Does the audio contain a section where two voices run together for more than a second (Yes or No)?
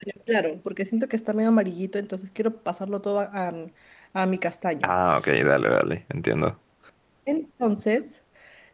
No